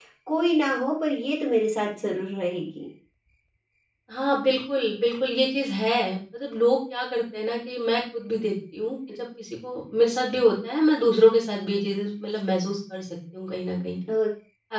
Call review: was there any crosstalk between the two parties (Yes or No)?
No